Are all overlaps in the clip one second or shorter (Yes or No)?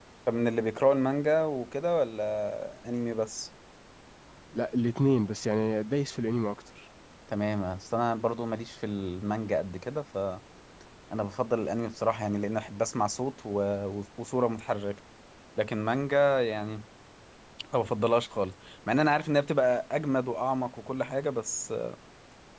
Yes